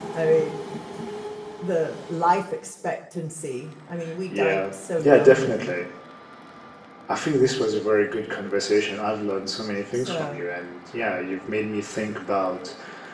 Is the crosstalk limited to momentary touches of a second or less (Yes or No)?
No